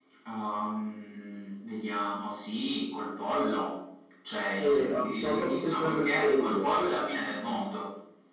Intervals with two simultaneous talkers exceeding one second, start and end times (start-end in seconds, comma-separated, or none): 4.6-6.7